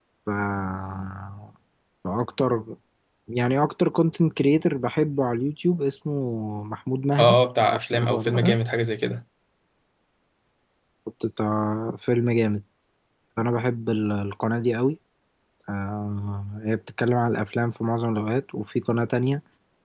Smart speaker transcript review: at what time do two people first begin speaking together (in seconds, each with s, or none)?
7.2 s